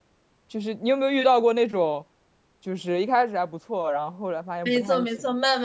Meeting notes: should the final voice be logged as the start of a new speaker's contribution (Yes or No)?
Yes